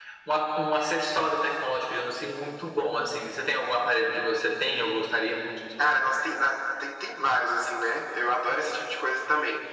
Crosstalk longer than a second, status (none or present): none